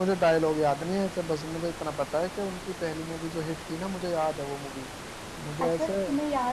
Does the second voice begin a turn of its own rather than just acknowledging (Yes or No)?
Yes